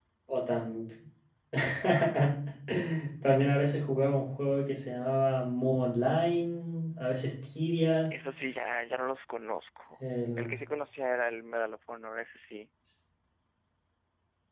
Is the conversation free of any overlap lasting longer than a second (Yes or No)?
Yes